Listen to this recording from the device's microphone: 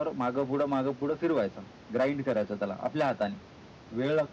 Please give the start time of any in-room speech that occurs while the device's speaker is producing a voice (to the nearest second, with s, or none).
none